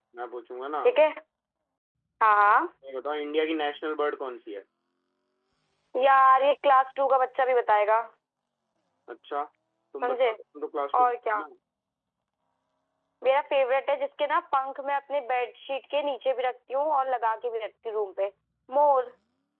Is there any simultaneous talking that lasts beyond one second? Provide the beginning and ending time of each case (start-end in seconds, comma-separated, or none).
none